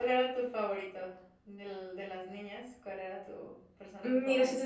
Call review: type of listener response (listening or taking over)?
taking over